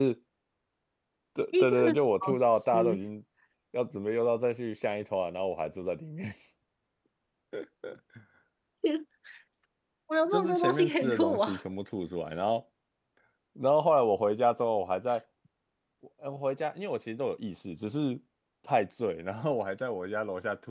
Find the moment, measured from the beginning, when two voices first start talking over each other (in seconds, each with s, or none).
1.6 s